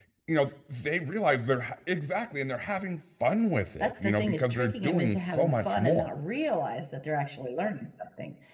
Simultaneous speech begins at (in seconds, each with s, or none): 3.8 s